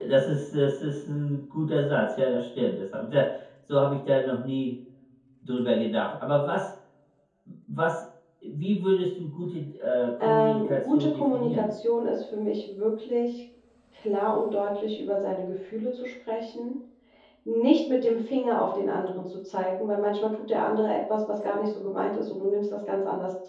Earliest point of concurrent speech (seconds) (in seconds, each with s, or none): 10.2 s